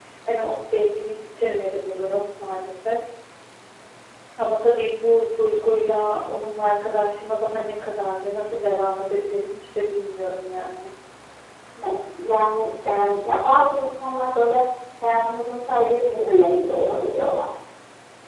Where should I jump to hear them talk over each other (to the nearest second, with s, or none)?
none